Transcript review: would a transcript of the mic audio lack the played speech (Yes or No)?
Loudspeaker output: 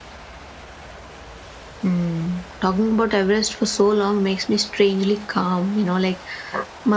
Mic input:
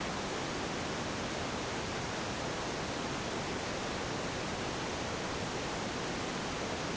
Yes